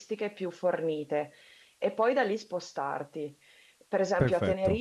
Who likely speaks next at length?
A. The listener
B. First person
B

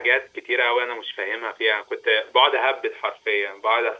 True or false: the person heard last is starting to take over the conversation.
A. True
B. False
B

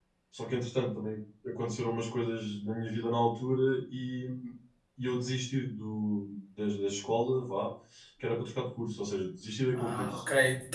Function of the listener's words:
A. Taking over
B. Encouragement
A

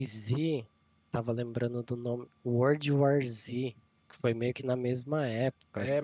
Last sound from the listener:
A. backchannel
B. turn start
B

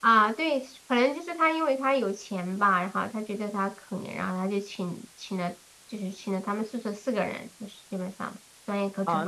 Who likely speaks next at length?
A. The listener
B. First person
A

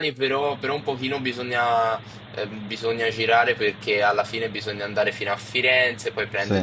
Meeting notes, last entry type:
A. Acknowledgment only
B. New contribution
A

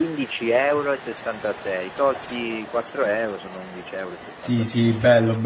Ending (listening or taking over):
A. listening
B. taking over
B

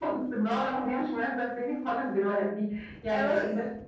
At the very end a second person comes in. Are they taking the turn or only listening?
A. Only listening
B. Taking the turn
A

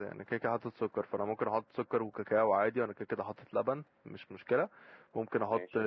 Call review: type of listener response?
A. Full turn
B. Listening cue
B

